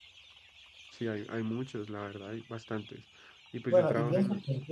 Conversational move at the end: taking over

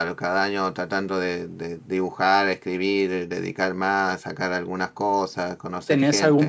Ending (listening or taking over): taking over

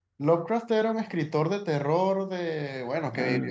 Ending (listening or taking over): listening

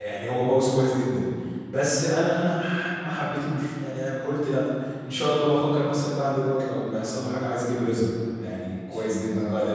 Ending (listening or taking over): taking over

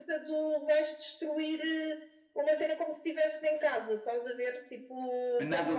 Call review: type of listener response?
taking over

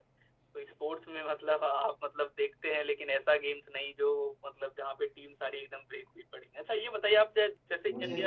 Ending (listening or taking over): listening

